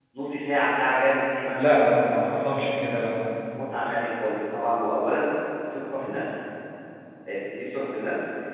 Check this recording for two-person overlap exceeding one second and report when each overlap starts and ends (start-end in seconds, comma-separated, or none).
none